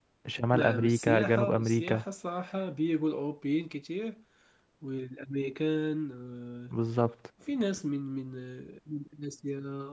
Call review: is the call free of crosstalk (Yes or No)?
No